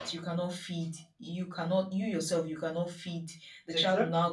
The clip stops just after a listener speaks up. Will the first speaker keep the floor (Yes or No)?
Yes